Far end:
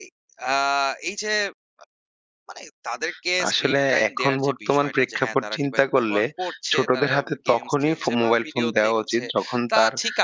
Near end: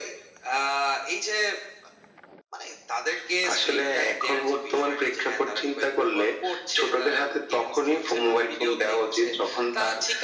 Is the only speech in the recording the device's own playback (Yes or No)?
Yes